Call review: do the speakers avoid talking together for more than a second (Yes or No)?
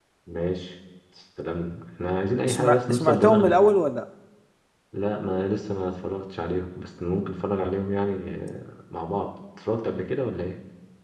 No